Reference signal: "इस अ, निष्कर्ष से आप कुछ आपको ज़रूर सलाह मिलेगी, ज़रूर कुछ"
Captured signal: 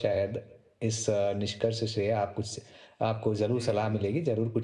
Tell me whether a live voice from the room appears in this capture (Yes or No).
Yes